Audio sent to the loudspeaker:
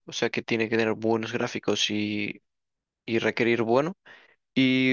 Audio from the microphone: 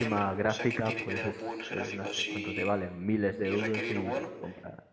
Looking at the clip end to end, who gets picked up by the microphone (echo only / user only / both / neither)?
both